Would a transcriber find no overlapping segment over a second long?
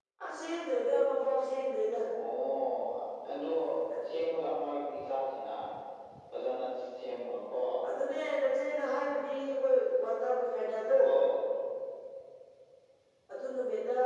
Yes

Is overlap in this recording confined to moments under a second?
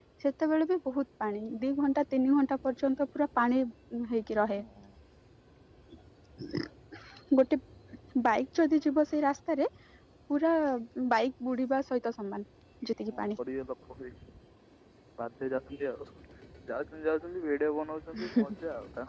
Yes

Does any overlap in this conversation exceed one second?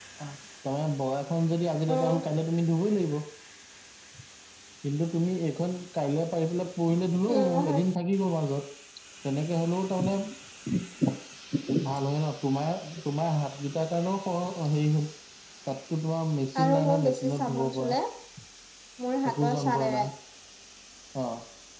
Yes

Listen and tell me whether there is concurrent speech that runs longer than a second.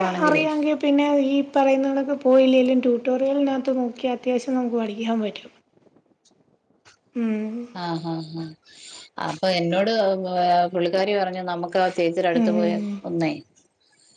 No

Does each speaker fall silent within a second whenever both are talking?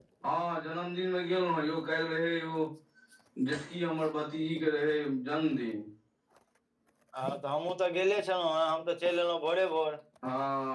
Yes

